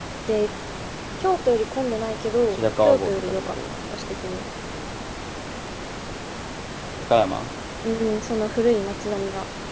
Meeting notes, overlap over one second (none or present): present